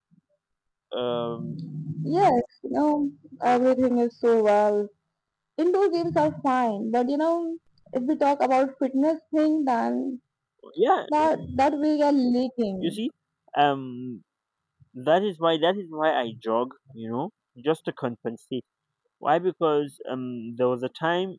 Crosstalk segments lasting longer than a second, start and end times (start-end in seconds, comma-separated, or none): none